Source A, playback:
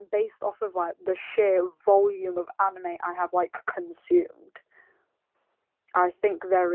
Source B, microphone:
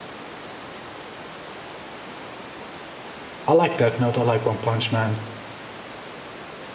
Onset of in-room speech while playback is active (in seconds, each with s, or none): 3.5 s